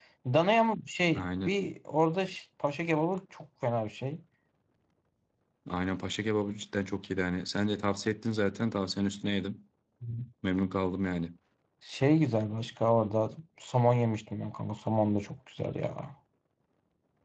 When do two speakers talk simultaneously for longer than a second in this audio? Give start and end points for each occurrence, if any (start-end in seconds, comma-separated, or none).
none